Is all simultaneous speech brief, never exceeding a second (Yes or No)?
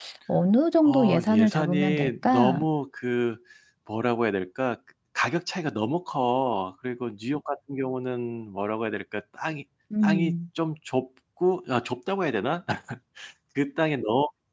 No